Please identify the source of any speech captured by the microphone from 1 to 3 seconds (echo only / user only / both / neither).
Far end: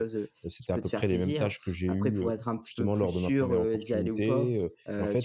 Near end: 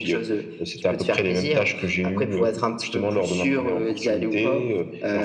echo only